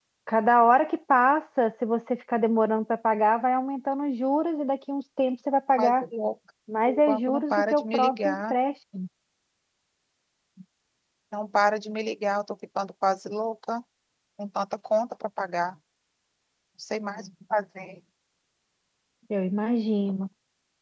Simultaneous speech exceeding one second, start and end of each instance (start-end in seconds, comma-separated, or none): 6.9-8.6